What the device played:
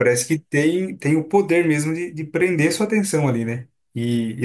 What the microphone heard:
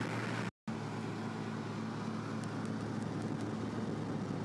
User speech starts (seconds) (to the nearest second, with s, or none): none